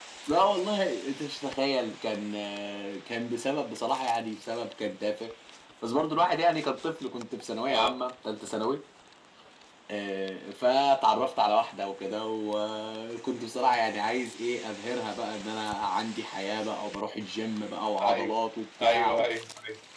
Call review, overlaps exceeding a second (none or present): none